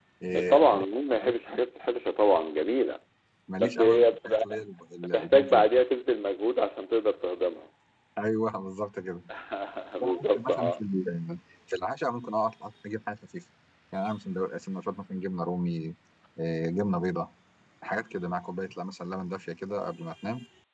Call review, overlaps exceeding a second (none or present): present